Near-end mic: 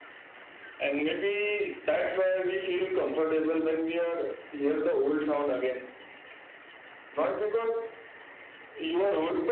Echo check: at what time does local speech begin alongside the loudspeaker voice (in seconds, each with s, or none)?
none